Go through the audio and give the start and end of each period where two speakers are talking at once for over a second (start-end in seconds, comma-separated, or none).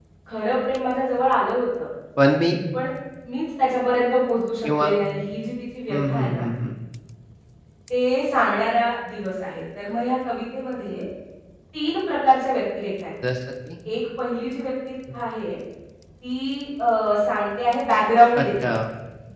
none